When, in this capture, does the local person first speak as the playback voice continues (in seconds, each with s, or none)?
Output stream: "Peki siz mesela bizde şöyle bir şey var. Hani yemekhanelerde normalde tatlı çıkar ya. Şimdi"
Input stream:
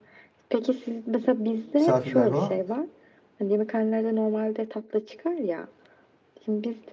1.8 s